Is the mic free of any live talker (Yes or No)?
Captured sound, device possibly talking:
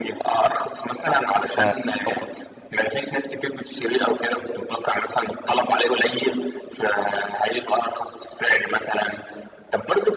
No